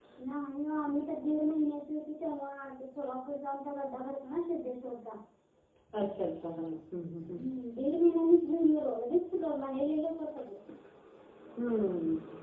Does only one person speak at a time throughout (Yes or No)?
Yes